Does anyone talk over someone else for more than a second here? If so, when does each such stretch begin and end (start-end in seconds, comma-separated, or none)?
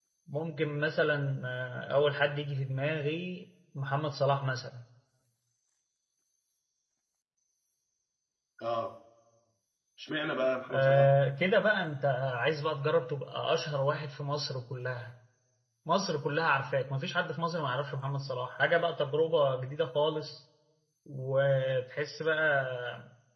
none